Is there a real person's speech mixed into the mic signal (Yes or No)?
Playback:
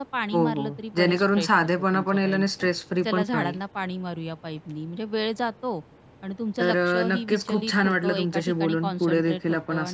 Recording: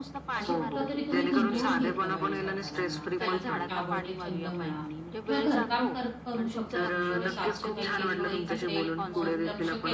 Yes